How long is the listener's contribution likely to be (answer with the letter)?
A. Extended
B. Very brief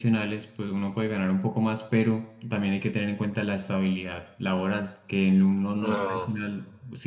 B